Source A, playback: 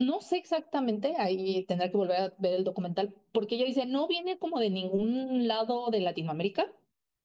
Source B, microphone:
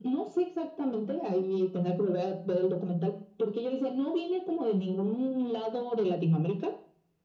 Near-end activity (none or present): none